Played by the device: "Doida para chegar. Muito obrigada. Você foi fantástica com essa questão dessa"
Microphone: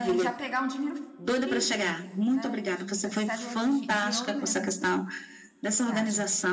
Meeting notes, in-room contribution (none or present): present